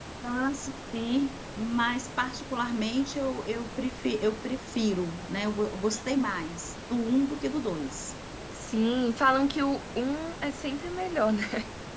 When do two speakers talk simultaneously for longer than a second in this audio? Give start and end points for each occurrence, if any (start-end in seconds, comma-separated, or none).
none